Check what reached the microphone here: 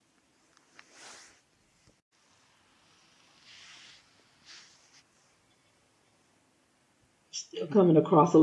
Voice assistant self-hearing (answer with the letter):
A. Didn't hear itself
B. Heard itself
A